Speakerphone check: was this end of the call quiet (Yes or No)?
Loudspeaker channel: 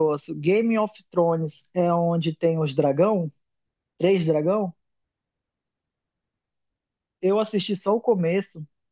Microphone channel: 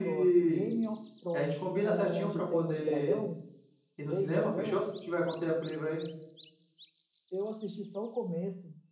No